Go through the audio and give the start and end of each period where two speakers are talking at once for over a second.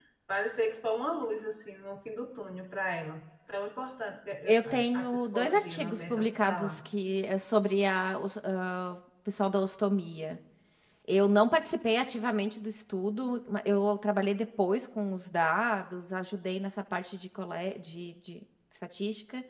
4.5-6.8

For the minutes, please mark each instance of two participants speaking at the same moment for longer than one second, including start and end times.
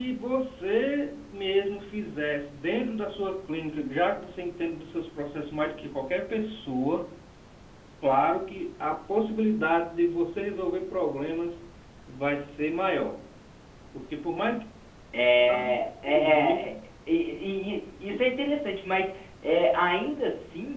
15.4-16.6

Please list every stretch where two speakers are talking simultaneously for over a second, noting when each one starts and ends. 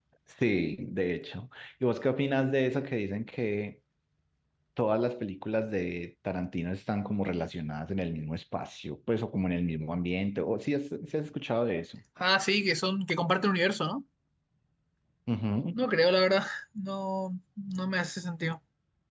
none

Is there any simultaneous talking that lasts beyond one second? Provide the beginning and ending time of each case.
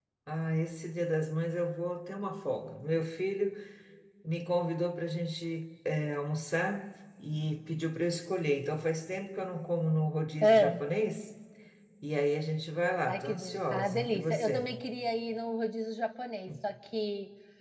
13.1-14.7

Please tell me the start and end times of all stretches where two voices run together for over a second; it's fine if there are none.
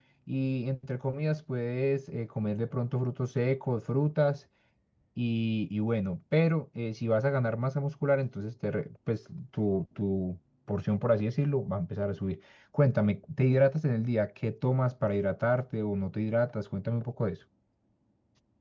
none

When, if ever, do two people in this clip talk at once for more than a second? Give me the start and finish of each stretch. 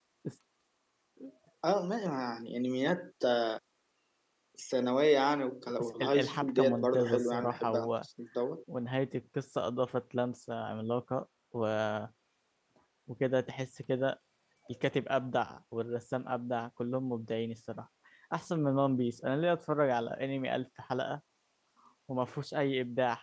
5.8-7.9

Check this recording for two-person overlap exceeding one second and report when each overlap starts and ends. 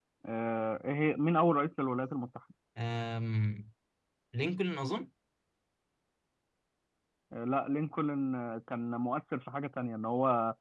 none

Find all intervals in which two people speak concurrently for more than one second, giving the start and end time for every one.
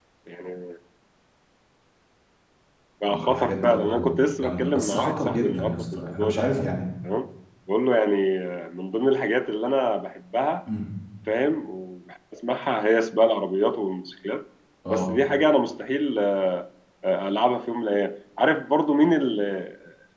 3.1-6.5

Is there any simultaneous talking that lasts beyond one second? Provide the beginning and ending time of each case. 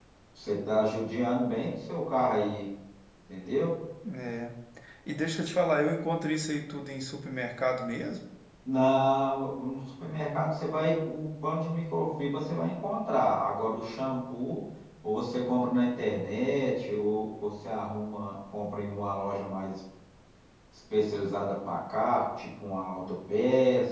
none

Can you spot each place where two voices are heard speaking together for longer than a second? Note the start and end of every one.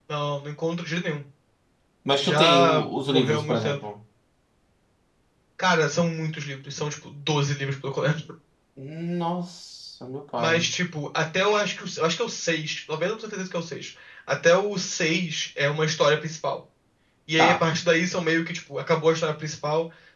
2.2-3.8

